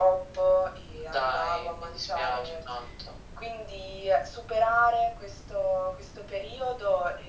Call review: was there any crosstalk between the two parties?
Yes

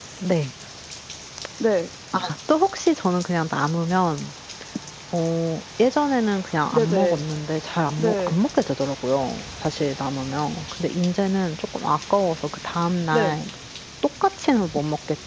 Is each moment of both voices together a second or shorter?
Yes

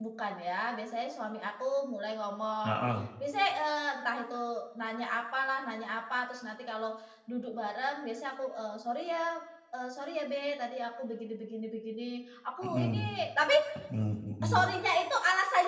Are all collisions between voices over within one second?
Yes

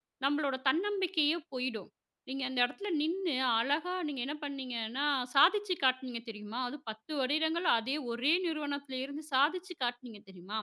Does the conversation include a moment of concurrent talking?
No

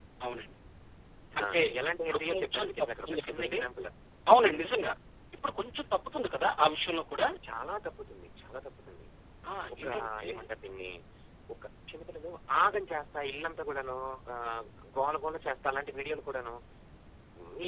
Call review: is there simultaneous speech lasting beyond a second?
Yes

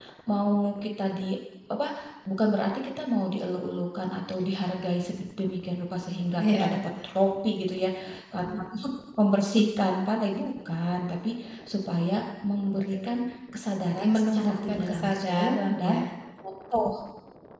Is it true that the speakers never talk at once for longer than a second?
No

